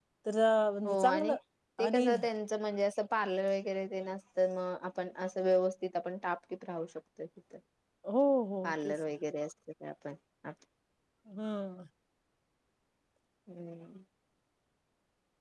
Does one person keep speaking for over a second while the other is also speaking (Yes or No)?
No